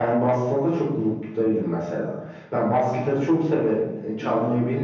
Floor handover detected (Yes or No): No